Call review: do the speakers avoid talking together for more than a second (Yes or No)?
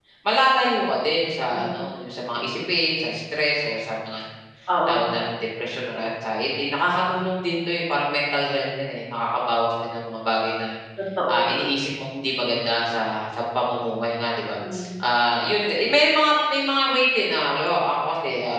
Yes